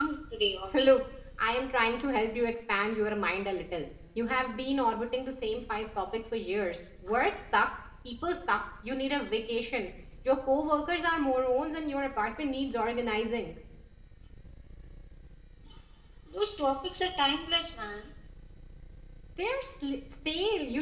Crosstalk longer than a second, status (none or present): none